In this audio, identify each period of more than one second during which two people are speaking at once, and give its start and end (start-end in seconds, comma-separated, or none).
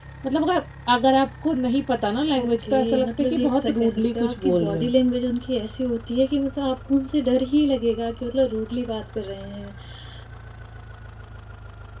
2.4-4.9